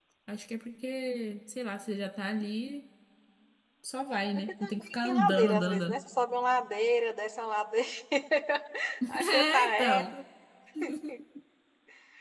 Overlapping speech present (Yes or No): Yes